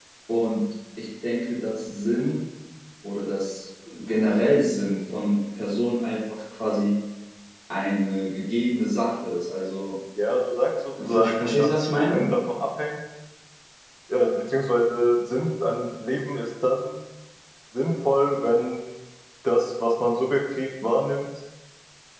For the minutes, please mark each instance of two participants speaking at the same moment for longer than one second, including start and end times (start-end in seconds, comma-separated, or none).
11.0-12.3